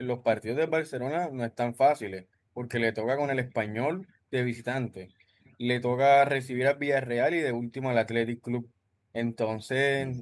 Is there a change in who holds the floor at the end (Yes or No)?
No